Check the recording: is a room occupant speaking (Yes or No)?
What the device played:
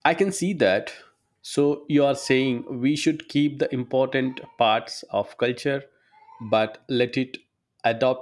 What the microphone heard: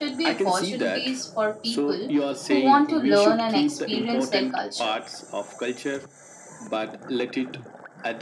Yes